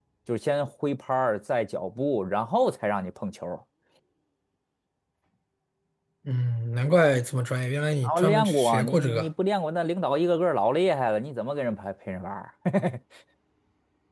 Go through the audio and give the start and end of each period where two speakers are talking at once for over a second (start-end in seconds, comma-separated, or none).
8.0-9.3